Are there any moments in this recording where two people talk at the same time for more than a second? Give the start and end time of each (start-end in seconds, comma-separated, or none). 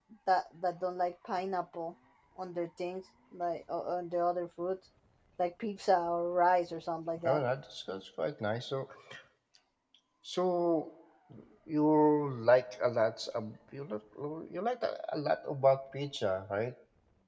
none